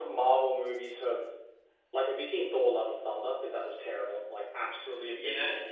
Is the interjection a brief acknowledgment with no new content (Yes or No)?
No